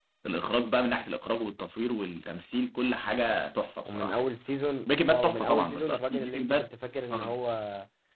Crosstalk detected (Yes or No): Yes